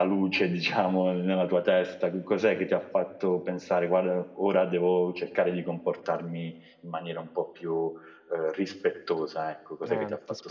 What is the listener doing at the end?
taking over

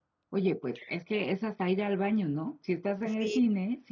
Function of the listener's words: listening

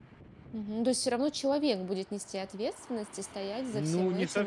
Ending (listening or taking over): taking over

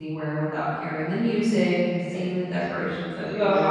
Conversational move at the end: taking over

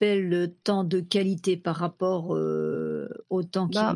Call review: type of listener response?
taking over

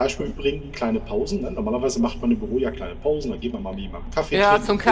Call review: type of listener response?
taking over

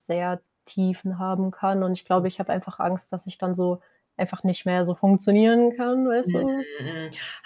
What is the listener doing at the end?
taking over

